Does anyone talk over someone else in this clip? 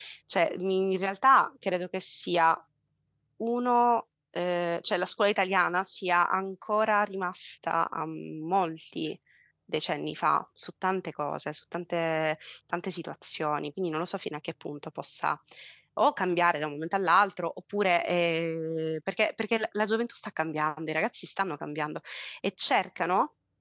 No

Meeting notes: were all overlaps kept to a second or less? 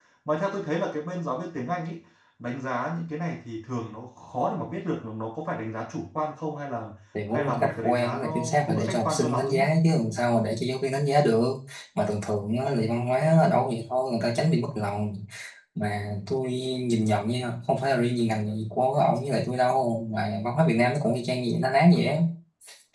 No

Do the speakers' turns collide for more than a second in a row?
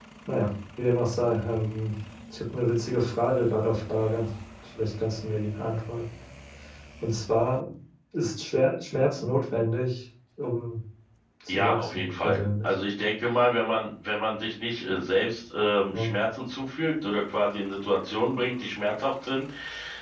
Yes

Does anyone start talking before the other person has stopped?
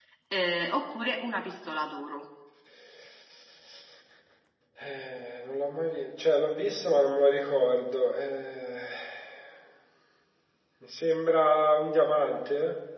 No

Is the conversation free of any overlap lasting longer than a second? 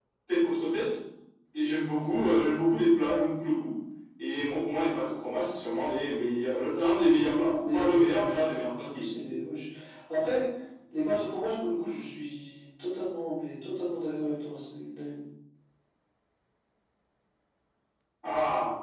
No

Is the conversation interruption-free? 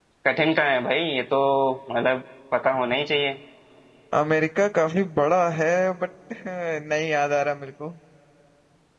Yes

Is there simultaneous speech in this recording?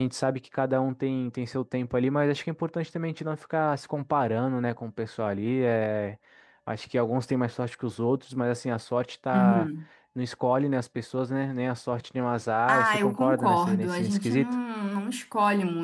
Yes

